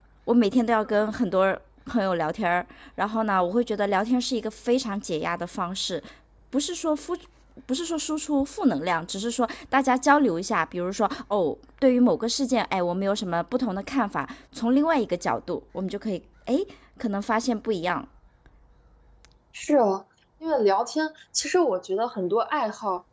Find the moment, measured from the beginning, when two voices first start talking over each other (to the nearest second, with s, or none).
none